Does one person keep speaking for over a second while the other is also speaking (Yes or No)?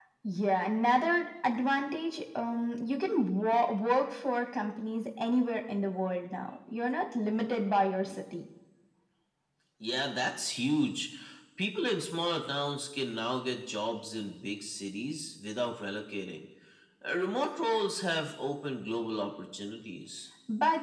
No